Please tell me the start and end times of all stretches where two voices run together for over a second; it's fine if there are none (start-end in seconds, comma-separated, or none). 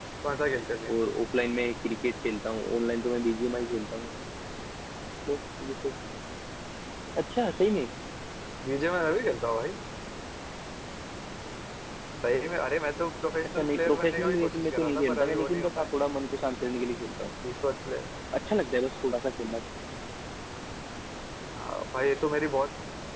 13.4-15.9